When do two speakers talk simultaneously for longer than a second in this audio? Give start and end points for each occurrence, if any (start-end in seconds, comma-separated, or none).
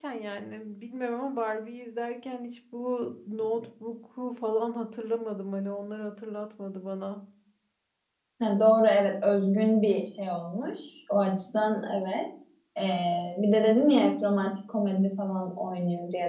none